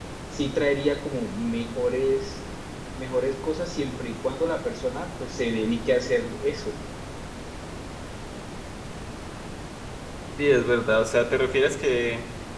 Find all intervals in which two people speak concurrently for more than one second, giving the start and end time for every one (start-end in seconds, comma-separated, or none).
none